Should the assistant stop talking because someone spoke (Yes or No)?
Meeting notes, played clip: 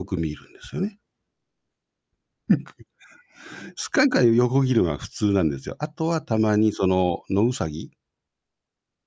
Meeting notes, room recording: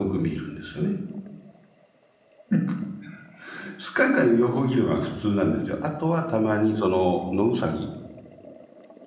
No